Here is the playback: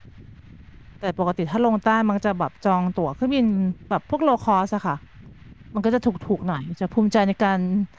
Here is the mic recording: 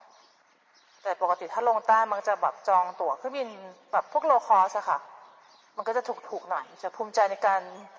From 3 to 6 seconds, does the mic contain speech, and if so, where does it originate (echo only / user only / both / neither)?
echo only